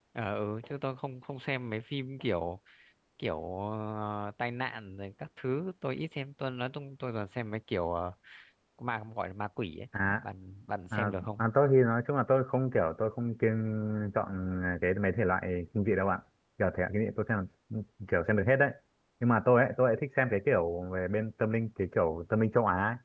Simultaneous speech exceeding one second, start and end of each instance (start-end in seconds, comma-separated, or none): none